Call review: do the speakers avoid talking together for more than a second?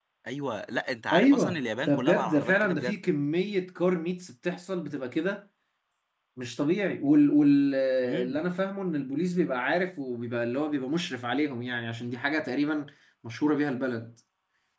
No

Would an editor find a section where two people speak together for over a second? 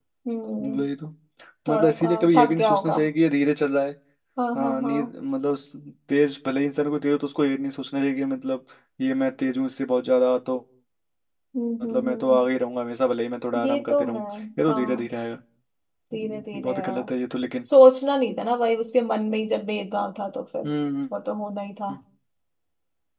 Yes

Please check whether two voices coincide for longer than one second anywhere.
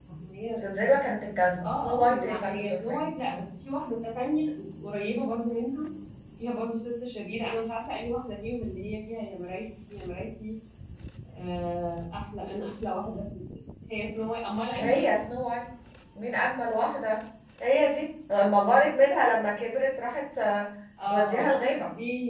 Yes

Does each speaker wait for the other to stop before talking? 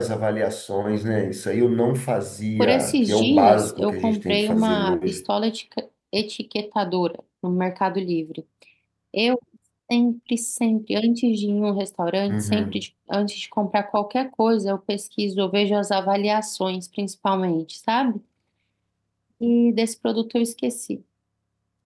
No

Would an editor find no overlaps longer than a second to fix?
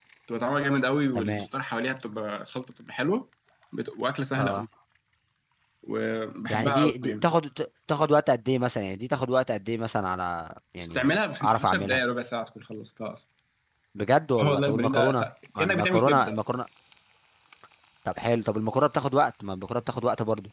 No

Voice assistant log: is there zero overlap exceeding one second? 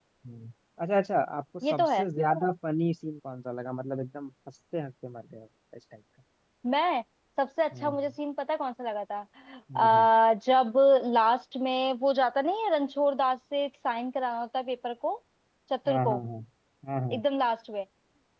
Yes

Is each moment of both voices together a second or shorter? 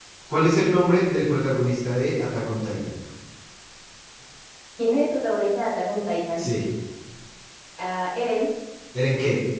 Yes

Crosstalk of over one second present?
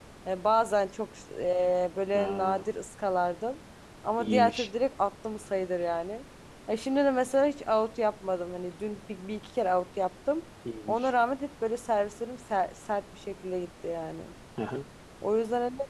No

